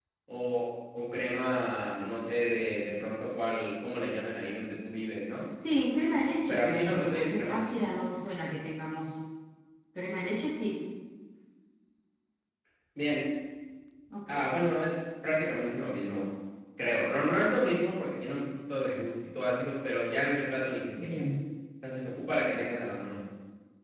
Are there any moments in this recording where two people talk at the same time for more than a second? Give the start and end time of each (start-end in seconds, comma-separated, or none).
6.5-7.8